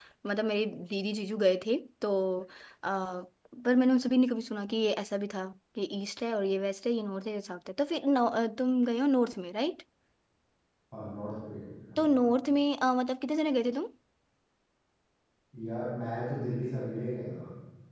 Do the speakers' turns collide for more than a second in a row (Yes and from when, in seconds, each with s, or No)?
No